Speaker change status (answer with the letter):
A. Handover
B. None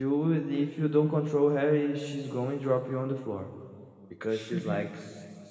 B